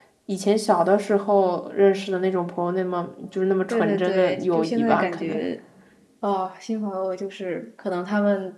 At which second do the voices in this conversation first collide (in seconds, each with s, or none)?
3.7 s